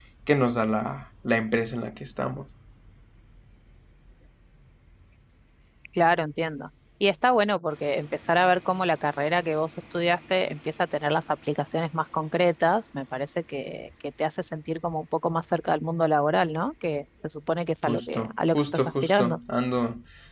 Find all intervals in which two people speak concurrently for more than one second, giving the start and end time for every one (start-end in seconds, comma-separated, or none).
17.8-19.4